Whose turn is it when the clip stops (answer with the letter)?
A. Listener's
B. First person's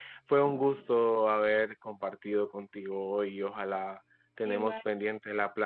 B